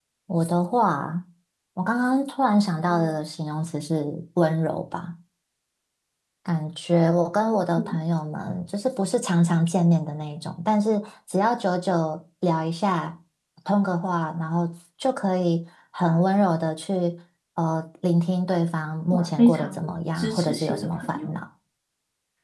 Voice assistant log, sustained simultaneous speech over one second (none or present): present